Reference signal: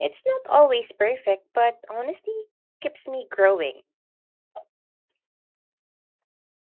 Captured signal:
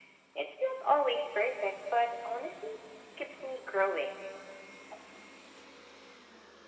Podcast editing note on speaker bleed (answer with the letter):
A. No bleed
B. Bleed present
B